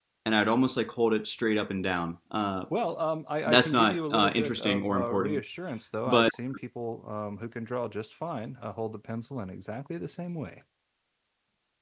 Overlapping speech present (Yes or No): Yes